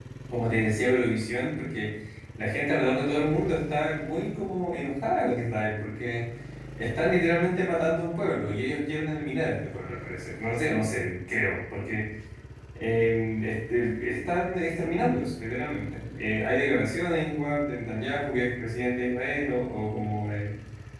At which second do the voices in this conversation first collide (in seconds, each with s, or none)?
none